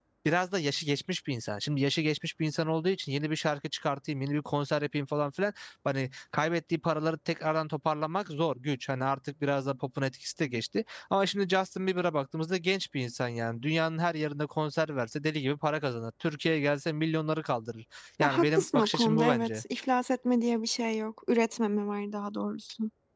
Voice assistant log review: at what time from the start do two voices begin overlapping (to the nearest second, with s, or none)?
18 s